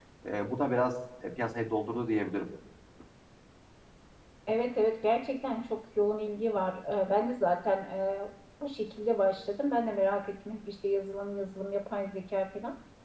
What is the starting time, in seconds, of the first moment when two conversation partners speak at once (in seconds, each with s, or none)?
none